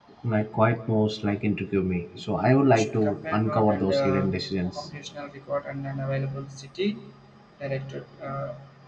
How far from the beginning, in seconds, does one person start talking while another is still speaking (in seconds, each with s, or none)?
2.7 s